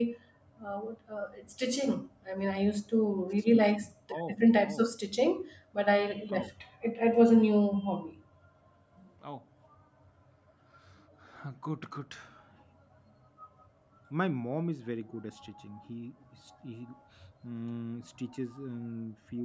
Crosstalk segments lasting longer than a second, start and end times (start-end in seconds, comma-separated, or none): 3.5-4.8